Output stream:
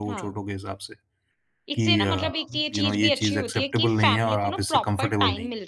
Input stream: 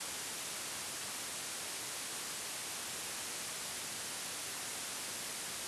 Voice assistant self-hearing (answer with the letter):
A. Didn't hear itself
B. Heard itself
A